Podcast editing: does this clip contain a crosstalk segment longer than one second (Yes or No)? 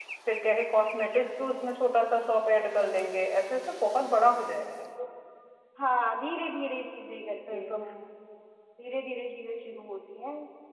No